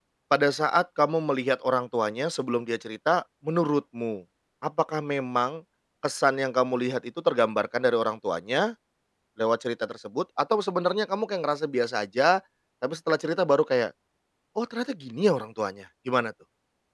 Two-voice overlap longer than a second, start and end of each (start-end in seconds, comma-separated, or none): none